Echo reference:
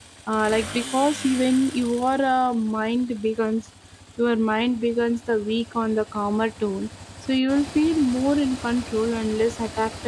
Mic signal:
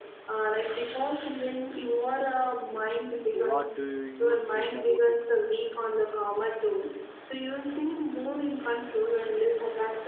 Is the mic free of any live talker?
No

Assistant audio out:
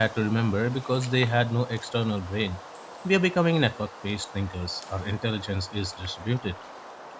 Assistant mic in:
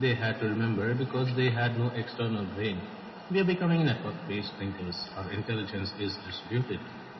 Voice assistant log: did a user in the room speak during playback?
No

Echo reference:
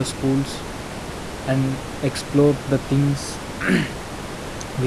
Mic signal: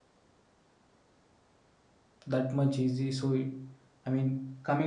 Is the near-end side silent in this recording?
No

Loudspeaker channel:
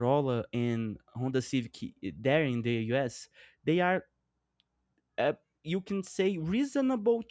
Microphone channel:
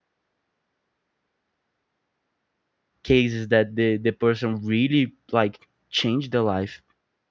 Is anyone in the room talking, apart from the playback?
Yes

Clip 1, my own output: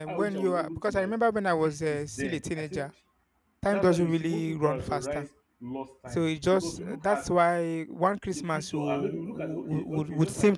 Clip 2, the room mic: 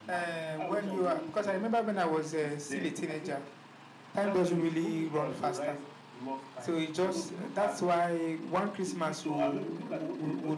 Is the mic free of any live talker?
Yes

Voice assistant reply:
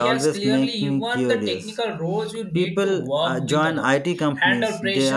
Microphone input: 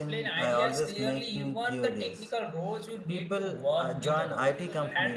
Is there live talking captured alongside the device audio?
Yes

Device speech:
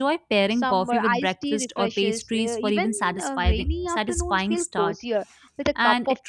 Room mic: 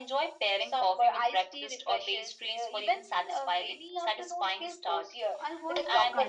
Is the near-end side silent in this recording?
No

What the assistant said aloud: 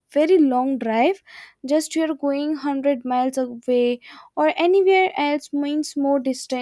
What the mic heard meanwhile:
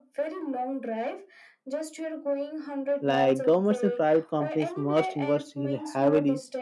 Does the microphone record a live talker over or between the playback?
Yes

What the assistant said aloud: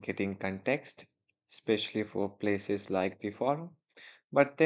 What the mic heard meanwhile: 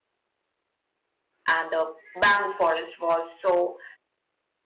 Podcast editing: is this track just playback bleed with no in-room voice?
No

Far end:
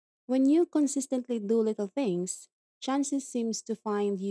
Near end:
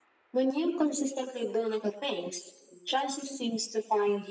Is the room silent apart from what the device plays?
Yes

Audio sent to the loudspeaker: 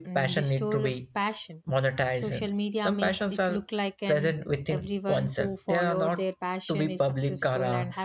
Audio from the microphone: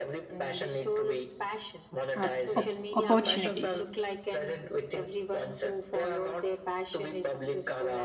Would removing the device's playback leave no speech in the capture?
No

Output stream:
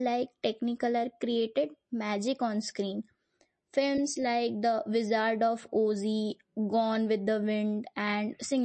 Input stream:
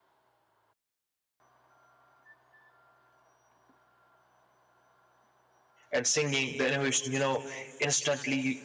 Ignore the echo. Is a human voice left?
Yes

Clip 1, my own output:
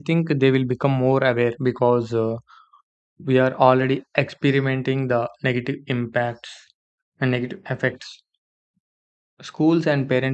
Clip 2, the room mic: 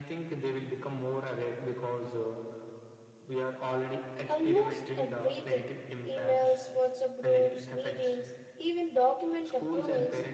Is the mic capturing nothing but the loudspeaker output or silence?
No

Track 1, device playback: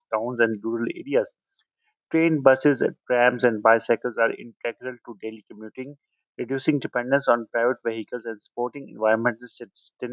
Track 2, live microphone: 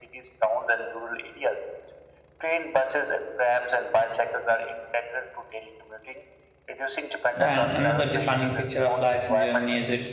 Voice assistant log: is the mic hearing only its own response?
No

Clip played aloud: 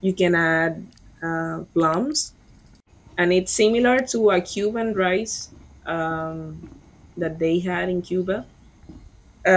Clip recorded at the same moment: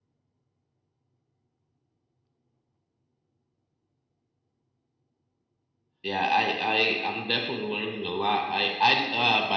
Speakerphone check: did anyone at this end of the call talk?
Yes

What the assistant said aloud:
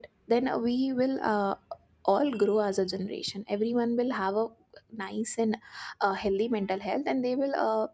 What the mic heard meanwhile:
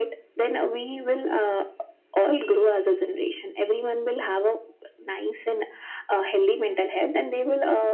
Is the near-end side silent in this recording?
Yes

